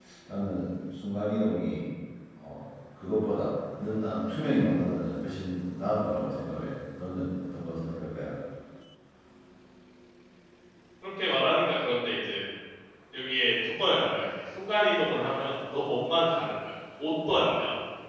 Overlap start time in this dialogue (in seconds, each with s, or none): none